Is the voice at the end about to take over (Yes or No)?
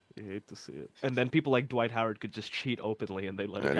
Yes